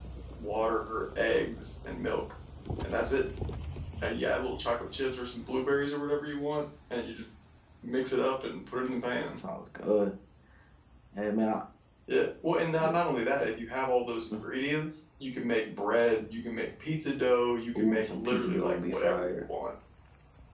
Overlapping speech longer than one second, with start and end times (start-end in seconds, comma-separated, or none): 17.8-19.4